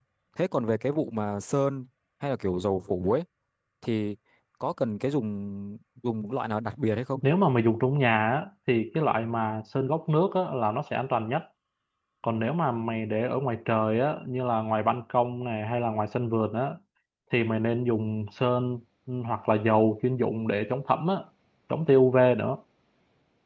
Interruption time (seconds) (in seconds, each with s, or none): none